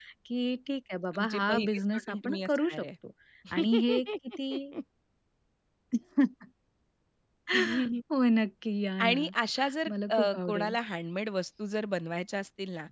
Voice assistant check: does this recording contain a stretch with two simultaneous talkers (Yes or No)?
Yes